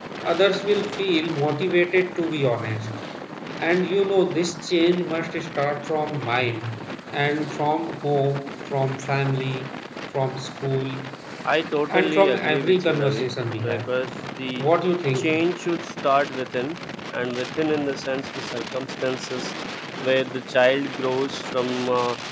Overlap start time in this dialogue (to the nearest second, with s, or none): 12 s